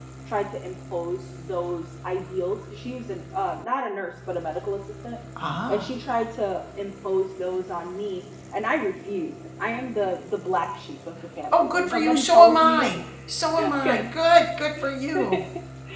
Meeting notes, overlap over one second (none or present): present